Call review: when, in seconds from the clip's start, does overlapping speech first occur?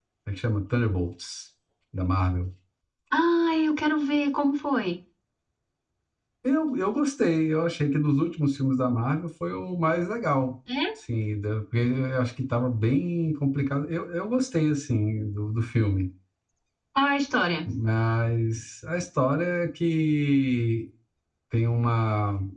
none

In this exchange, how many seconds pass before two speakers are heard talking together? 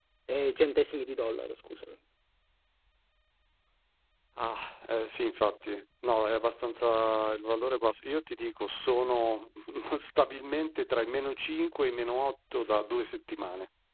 none

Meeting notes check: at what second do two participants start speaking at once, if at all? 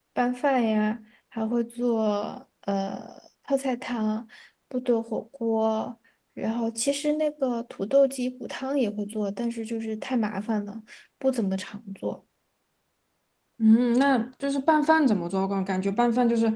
none

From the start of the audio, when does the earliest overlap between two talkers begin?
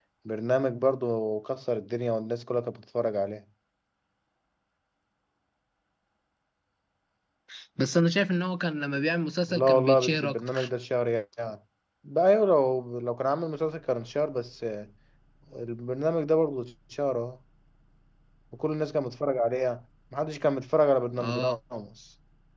9.5 s

